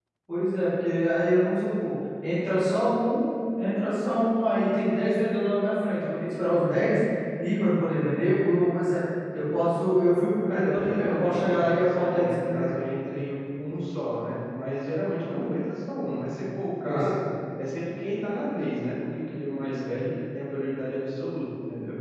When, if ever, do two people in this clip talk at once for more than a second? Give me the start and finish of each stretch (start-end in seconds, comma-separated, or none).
10.5-12.7